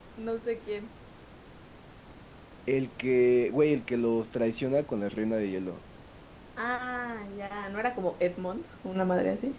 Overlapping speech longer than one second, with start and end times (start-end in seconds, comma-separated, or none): none